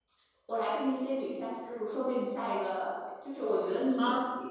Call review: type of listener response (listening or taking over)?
listening